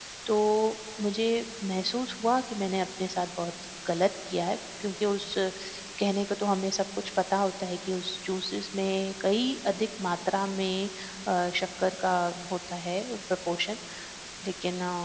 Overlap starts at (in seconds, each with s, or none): none